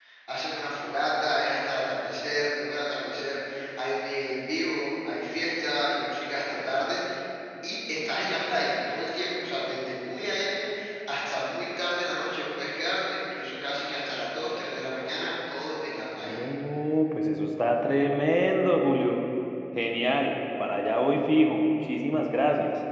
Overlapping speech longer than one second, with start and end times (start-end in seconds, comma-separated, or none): none